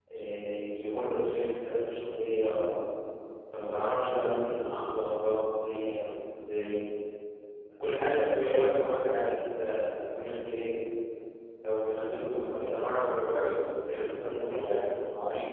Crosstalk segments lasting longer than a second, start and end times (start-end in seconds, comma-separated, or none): 13.6-14.8